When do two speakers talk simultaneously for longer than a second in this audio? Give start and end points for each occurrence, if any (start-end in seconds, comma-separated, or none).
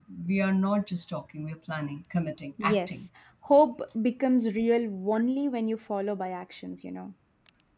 none